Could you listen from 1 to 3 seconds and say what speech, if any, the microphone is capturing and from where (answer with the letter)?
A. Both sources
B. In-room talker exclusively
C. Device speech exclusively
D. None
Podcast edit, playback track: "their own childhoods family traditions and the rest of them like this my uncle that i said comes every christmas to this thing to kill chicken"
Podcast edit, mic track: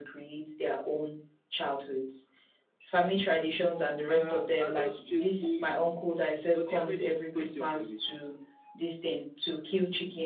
C